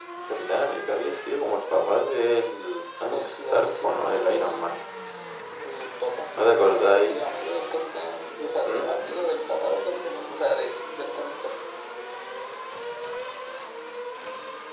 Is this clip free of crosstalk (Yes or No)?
No